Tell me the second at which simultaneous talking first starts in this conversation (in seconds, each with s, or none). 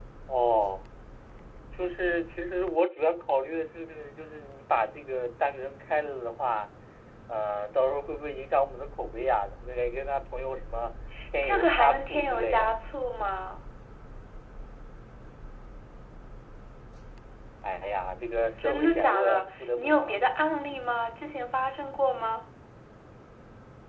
11.4 s